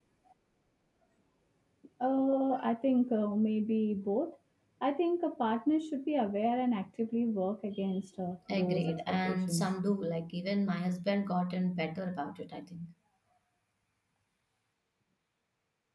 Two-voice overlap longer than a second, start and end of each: 8.5-9.7

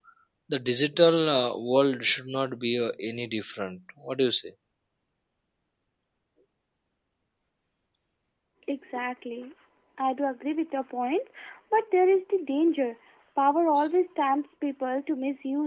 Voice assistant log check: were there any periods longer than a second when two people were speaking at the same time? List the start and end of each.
none

